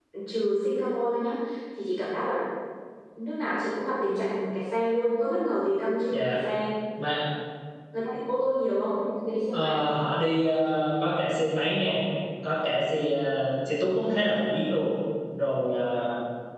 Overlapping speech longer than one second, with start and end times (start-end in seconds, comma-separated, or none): none